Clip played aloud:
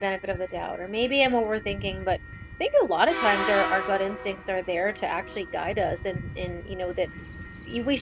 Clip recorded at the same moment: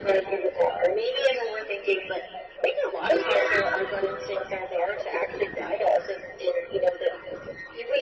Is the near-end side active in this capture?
No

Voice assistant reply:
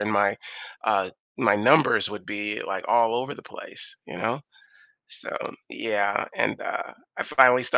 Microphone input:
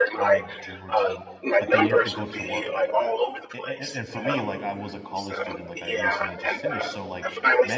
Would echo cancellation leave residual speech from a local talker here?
Yes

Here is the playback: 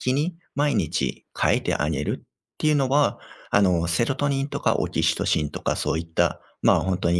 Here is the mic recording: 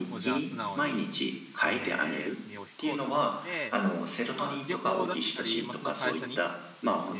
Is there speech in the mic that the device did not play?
Yes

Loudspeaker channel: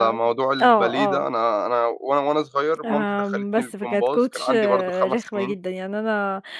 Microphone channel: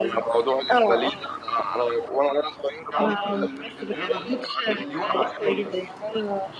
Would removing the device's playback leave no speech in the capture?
No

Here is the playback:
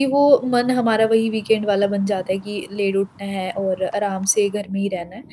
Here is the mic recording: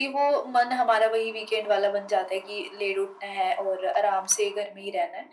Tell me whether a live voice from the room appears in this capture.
No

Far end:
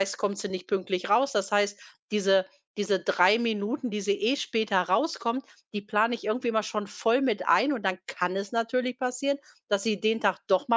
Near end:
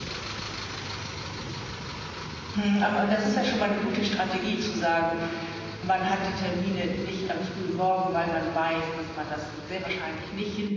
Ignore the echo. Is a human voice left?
Yes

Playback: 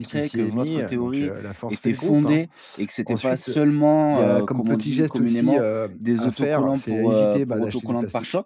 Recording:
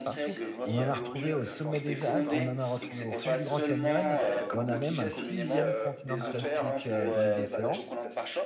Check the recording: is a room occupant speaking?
Yes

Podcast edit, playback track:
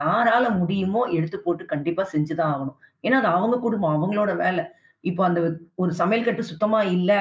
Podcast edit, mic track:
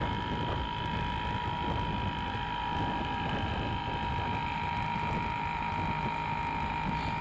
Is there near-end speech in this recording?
No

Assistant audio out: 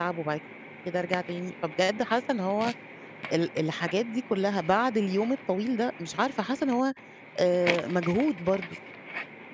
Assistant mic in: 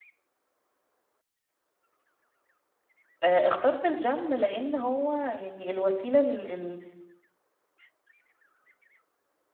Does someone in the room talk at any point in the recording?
Yes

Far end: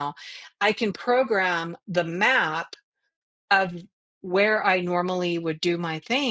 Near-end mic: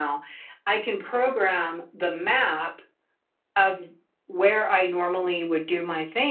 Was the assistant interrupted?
No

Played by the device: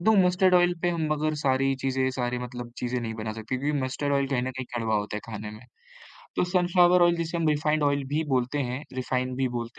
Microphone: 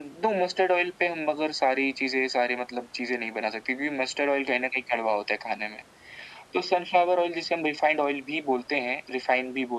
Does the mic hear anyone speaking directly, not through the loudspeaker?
No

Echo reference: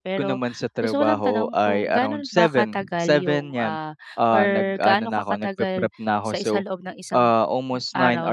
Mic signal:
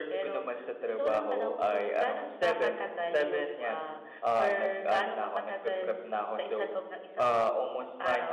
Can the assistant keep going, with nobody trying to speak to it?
Yes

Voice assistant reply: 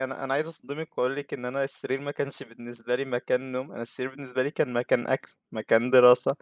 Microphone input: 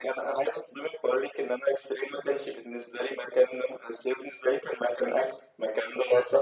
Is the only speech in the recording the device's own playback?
Yes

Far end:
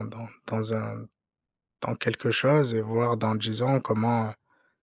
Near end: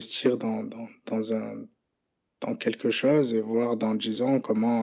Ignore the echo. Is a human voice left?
No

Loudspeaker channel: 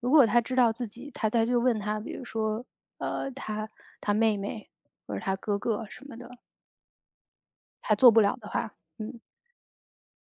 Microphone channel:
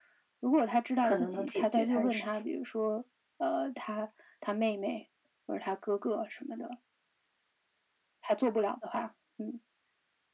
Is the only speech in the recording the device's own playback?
No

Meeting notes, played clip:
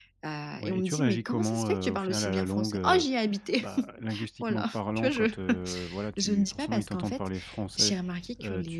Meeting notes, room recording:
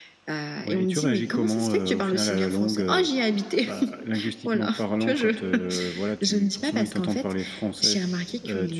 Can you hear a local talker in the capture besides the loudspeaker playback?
No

